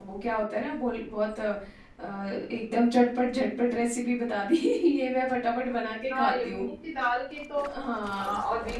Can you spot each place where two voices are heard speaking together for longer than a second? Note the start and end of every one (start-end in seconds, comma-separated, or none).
none